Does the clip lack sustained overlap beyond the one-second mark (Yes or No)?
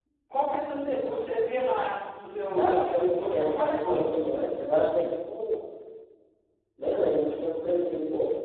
No